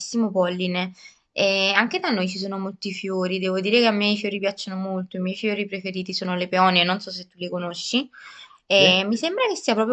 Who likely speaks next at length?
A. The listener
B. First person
B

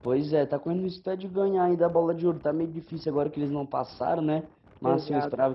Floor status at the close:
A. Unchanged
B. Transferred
A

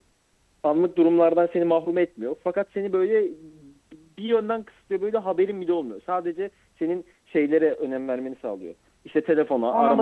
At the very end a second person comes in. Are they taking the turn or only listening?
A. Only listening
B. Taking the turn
A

